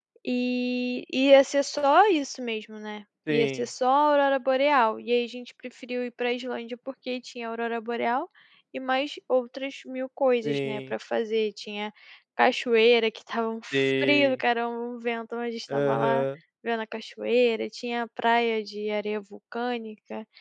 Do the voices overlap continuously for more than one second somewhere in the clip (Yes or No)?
No